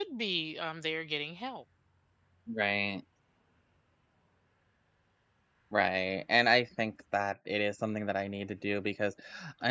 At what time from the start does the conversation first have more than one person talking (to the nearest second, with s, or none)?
none